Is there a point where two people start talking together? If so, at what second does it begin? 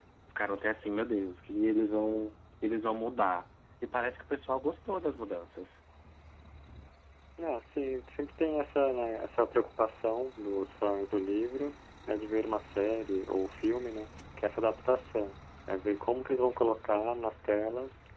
none

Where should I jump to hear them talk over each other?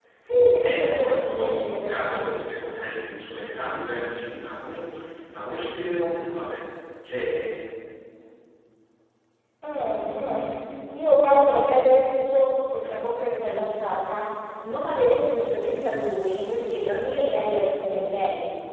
1 s

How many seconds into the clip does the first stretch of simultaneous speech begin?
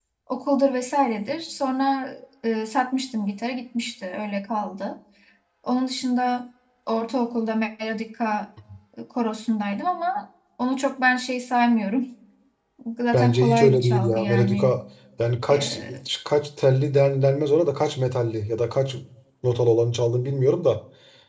13 s

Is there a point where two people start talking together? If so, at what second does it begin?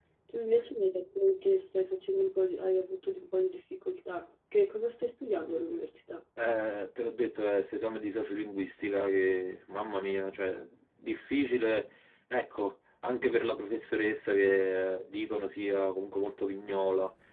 none

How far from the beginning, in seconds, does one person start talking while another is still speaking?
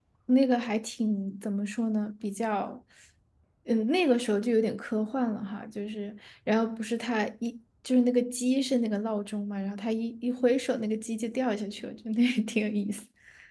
none

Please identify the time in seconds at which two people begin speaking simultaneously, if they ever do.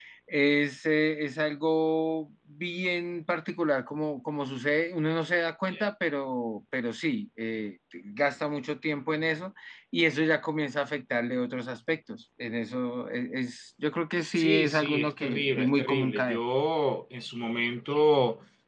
14 s

